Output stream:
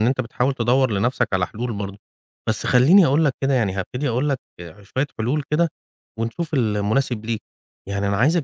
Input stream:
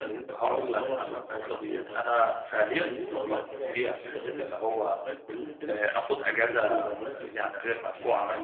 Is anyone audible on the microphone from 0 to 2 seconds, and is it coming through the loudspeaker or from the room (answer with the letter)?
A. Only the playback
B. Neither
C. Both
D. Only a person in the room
C